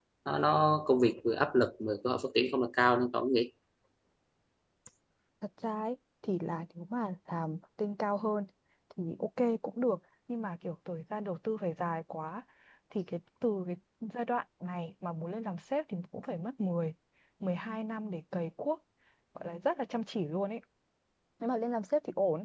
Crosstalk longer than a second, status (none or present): none